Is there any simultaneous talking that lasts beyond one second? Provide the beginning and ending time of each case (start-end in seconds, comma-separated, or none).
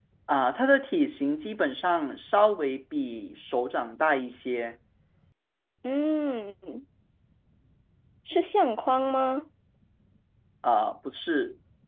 none